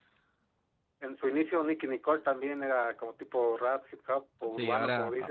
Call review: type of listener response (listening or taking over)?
taking over